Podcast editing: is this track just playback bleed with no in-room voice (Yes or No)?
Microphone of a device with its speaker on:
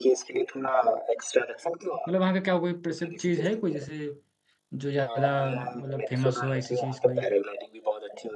No